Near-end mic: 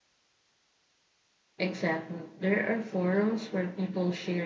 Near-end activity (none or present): present